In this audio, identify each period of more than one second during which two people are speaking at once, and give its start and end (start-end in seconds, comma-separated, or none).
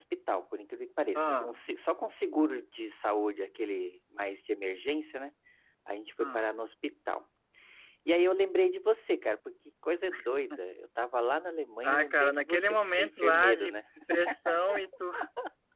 11.8-13.8